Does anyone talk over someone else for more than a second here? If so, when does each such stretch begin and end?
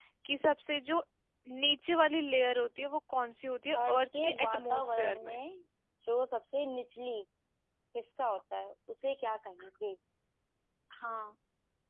3.9-5.4

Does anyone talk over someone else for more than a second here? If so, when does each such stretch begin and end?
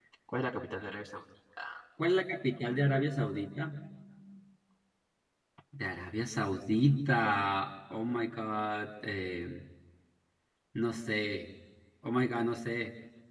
2.6-3.8

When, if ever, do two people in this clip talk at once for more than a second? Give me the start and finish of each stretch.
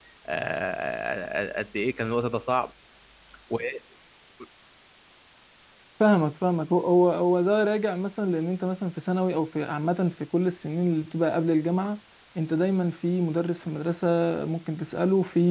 none

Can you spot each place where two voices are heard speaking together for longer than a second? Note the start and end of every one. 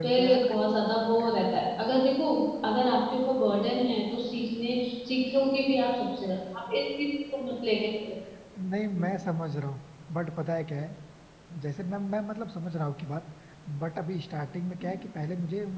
none

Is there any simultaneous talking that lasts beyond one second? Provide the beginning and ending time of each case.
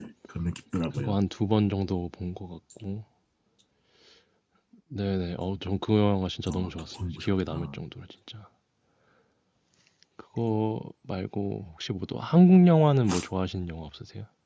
6.5-7.8

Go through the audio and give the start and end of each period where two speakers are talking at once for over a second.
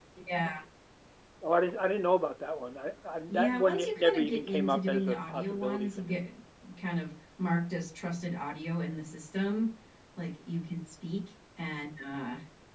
3.3-6.2

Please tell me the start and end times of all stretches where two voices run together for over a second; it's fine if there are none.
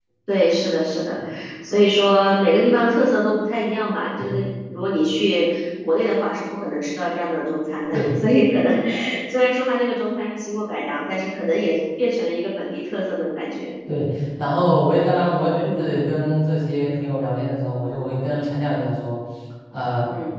none

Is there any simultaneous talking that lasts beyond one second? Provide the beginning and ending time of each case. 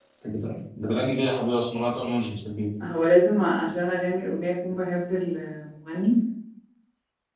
none

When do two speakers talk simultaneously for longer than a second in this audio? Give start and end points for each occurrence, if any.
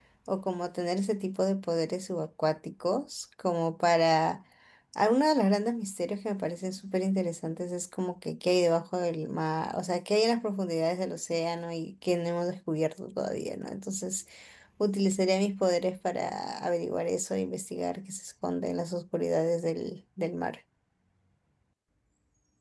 none

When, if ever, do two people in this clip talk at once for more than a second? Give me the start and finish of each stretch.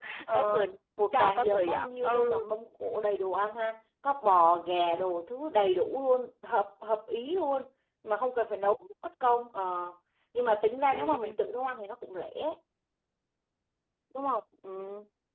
1.1-2.5

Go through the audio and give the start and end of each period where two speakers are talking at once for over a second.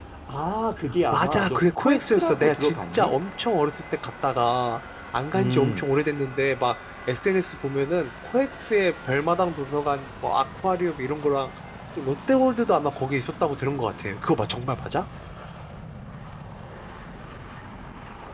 1.1-3.1

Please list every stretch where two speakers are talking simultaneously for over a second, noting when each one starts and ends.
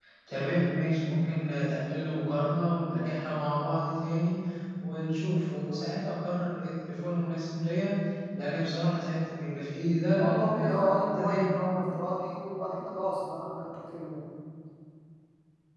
10.2-11.8

